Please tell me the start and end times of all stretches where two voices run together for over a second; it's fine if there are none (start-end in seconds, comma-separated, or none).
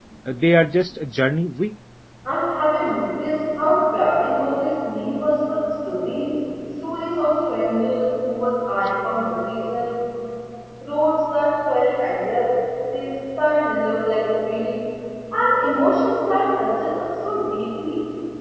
none